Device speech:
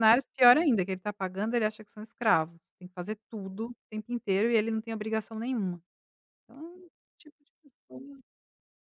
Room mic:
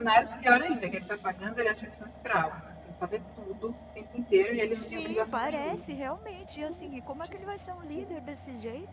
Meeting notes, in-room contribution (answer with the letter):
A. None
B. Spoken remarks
B